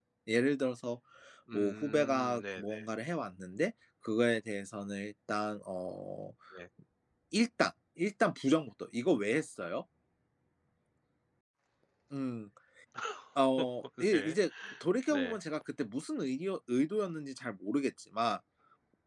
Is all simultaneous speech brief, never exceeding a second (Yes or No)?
No